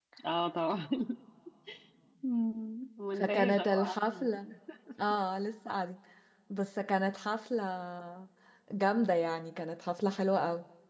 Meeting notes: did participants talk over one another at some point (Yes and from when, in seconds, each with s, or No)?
Yes, from 3.1 s